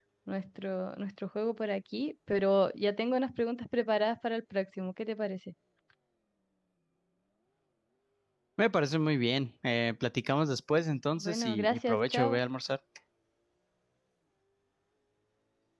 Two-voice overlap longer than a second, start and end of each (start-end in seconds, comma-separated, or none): 11.2-12.4